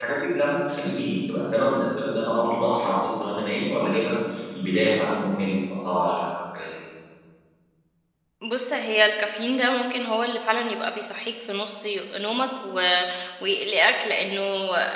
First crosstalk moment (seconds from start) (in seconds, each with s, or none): none